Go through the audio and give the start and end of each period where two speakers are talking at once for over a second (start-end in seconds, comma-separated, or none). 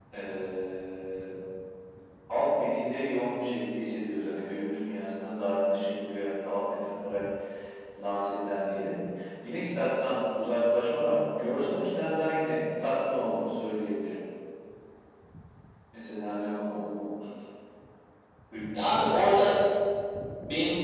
none